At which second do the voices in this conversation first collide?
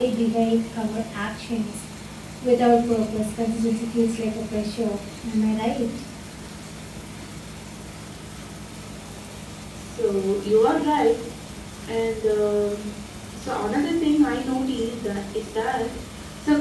none

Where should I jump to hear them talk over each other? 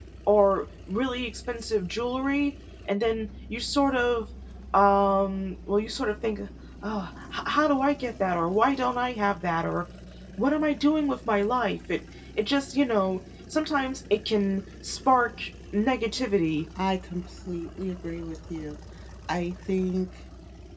none

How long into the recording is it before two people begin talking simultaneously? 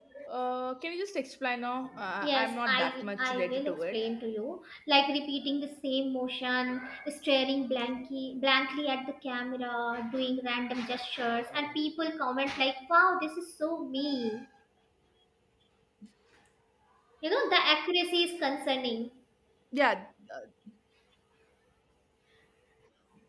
2 s

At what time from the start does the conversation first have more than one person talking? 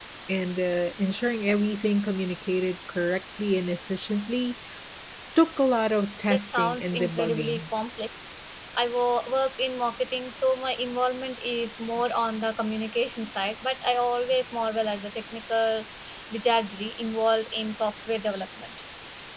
6 s

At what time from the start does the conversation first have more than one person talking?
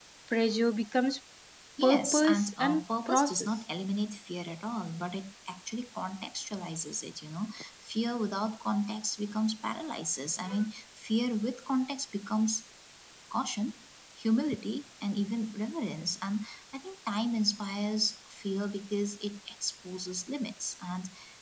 2 s

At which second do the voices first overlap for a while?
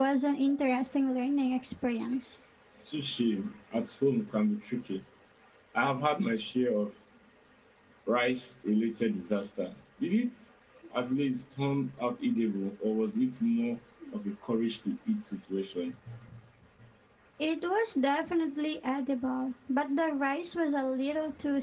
none

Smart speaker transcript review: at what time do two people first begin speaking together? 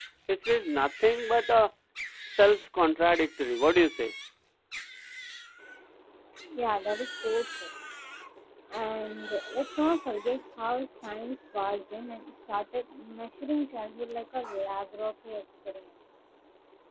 none

